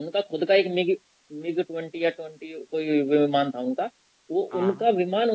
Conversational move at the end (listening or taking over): listening